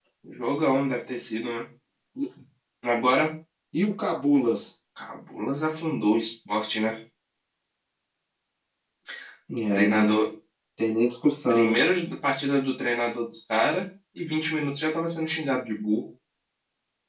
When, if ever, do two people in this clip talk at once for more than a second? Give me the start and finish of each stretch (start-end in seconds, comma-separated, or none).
none